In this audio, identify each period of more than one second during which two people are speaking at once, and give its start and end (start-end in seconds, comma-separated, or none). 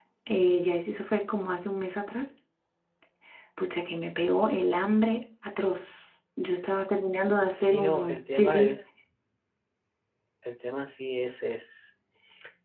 7.6-8.8